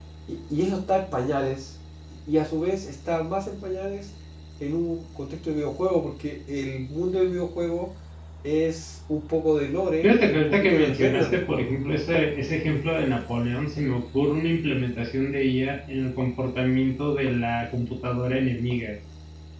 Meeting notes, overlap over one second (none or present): present